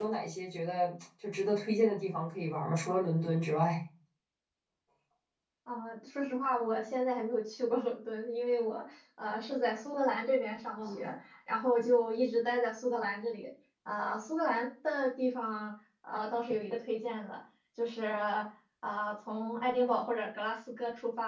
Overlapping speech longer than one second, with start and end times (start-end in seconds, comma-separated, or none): none